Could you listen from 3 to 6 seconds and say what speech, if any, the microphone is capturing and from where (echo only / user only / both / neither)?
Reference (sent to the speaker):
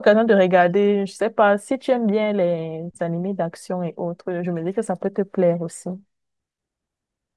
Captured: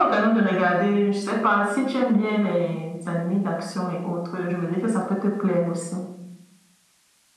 echo only